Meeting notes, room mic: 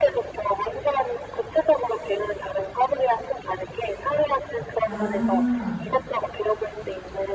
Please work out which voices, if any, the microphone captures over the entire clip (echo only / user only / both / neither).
both